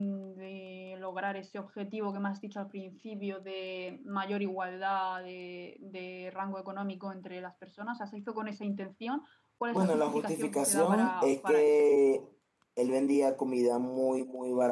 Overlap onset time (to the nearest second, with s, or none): 10 s